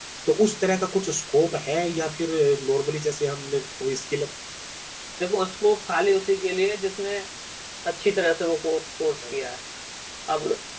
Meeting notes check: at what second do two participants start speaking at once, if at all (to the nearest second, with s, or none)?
none